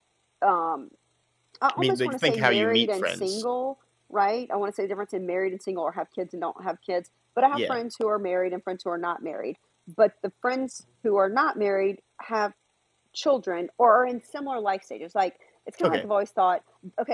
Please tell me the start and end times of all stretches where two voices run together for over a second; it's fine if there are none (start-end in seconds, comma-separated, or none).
1.8-3.4